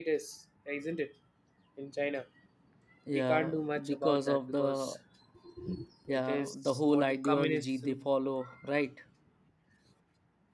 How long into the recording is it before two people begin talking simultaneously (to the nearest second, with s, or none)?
3 s